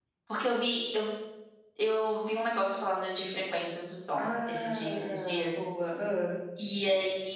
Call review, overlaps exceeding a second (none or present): present